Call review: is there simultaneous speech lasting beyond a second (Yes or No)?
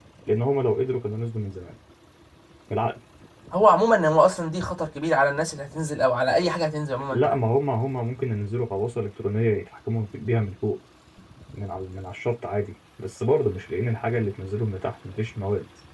No